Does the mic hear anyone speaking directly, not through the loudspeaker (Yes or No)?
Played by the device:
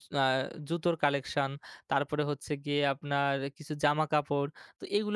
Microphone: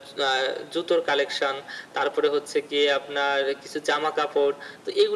No